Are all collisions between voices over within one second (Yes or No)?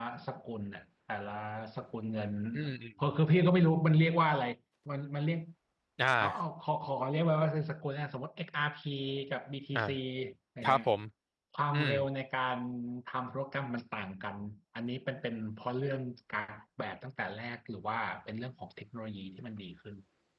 Yes